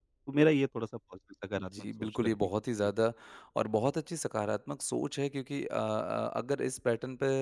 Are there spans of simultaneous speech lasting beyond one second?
Yes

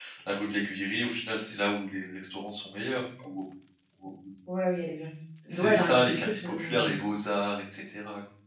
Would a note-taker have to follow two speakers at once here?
Yes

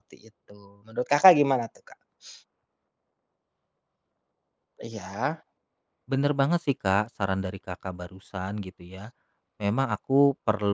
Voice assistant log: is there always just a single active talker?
Yes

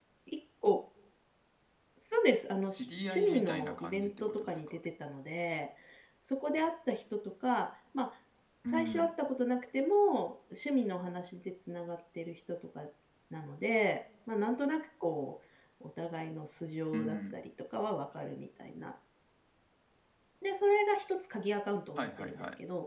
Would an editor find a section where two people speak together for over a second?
Yes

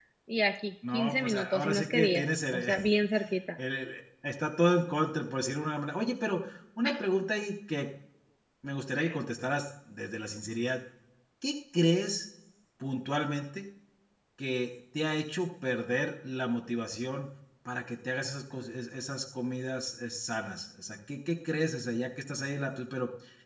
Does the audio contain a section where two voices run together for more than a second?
Yes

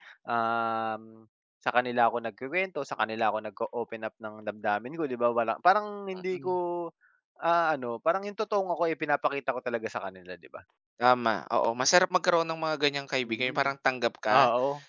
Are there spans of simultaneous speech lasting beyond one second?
No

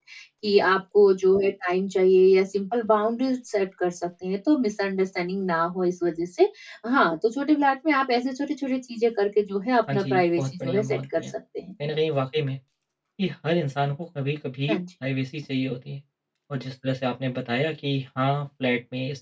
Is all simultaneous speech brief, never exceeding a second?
No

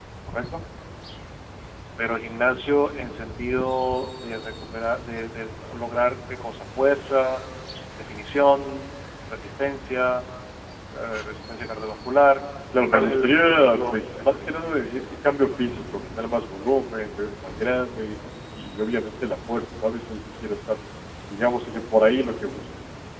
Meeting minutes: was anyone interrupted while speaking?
Yes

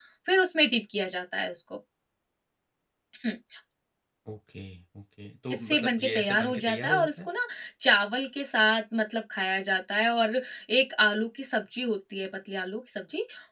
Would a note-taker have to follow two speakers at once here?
Yes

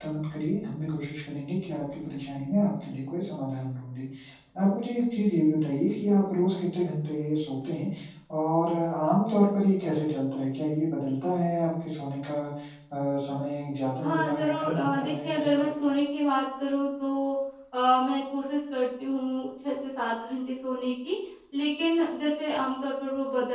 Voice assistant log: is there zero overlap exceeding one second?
No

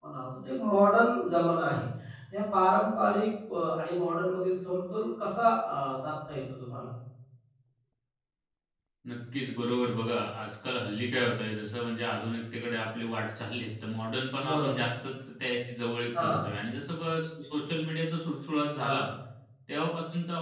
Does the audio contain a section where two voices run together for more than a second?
No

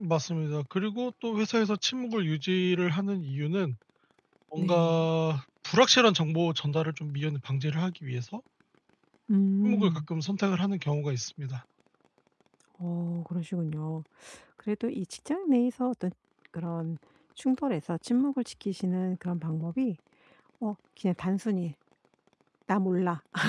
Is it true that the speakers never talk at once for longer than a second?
Yes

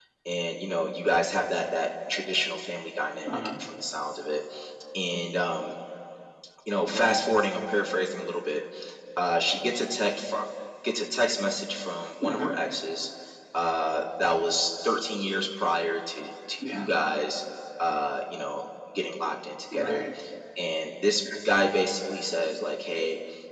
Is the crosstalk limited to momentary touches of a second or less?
Yes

